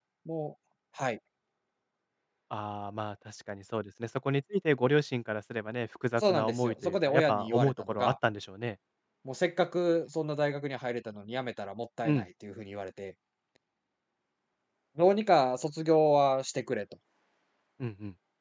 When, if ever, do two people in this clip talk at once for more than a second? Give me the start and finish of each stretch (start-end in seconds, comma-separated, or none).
6.2-8.2